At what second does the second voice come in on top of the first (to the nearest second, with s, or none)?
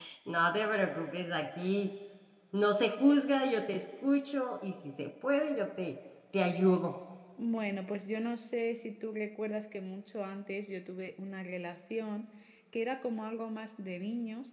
none